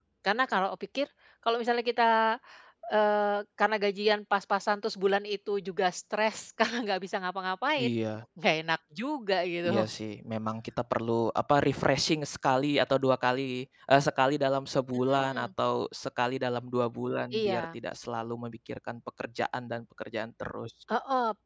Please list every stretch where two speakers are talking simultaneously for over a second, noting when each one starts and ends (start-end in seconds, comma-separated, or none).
none